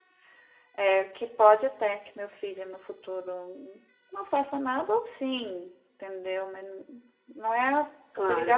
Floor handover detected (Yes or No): Yes